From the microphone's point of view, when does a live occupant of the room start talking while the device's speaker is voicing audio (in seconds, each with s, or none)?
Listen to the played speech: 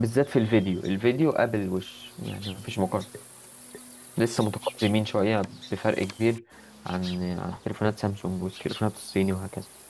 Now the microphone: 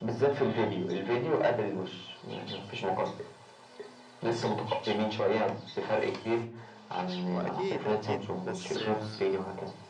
7.3 s